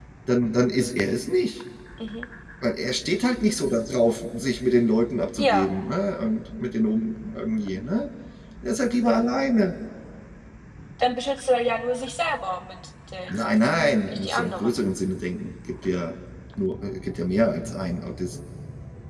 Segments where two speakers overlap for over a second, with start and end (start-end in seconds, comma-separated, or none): 13.3-14.8